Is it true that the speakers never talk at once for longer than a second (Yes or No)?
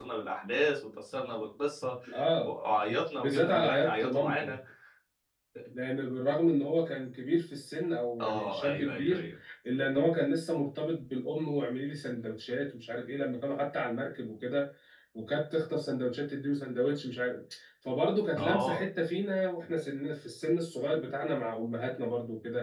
No